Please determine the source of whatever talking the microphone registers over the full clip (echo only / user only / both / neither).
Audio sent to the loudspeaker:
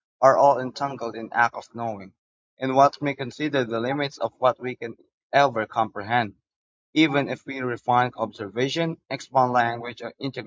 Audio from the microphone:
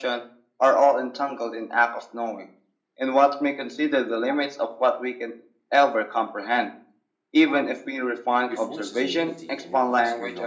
both